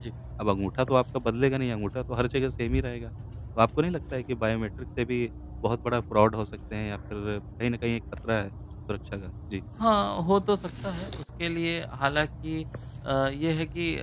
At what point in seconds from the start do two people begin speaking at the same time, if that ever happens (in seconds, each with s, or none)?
none